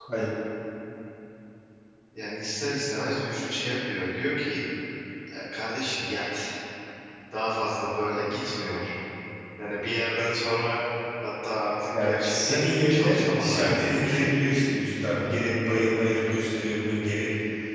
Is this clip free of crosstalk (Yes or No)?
No